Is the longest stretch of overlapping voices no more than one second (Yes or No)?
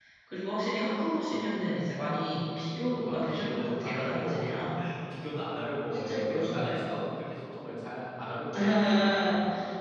No